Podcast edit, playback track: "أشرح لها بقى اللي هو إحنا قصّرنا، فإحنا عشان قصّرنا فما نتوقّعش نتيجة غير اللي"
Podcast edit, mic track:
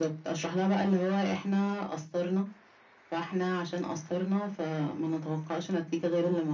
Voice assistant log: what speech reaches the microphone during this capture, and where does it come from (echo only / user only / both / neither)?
echo only